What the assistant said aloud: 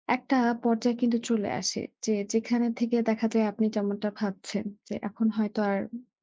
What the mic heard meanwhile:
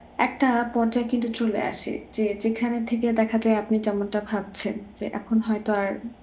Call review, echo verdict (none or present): present